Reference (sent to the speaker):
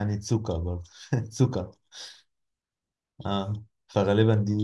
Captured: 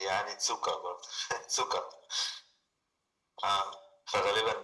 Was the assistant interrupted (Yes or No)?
No